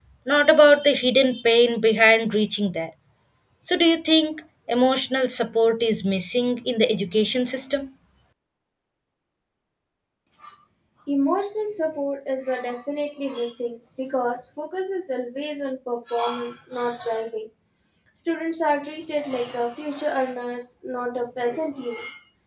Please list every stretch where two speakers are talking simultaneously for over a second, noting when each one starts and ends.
none

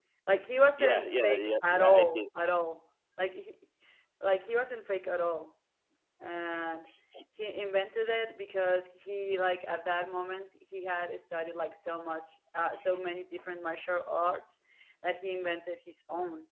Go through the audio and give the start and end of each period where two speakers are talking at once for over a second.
0.8-2.2

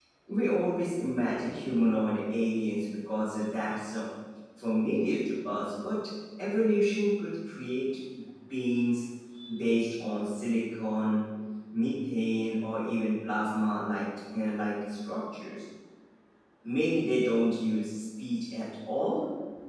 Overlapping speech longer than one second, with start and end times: none

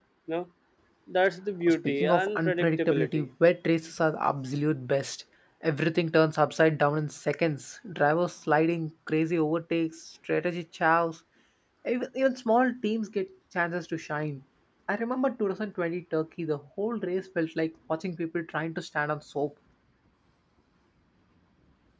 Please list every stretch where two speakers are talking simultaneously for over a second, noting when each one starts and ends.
1.7-3.3

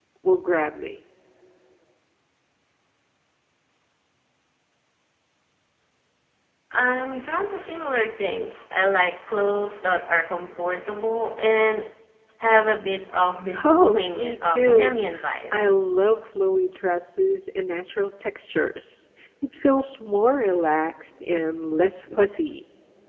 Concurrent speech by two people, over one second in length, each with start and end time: 13.6-15.0

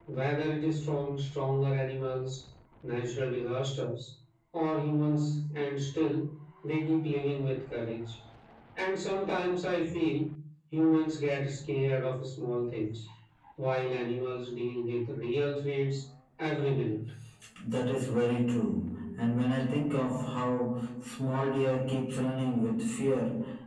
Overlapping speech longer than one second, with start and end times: none

